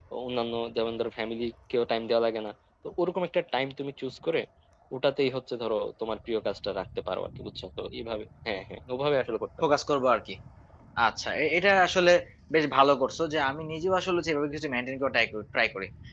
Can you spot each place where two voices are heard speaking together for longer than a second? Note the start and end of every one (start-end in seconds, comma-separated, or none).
none